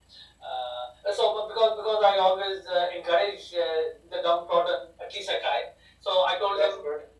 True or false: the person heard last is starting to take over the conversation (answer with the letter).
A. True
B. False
B